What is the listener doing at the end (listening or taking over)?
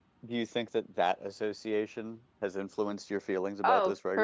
taking over